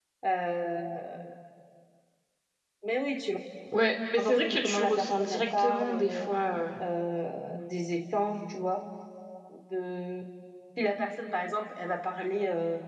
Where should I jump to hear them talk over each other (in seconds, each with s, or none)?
4.2 s